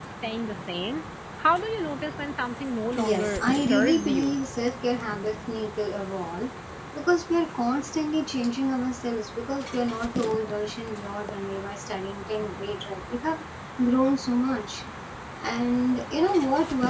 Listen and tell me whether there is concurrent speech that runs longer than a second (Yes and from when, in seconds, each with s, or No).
Yes, from 3.0 s